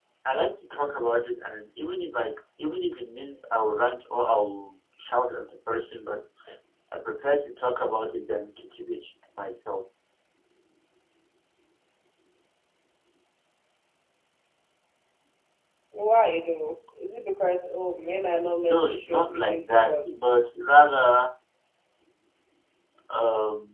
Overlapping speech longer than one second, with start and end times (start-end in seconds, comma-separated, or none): 18.6-20.2